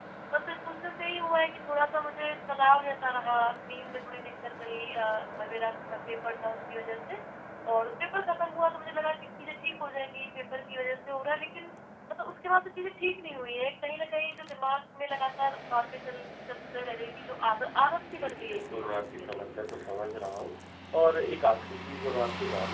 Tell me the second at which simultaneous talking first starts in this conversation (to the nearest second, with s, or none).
18 s